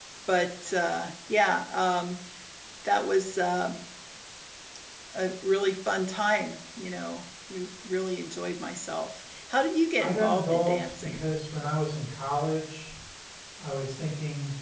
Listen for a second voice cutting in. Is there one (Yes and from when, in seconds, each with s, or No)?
Yes, from 10.0 s